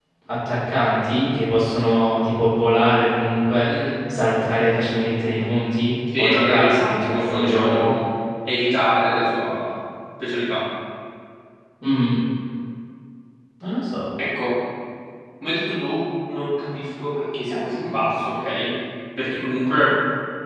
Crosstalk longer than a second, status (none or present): present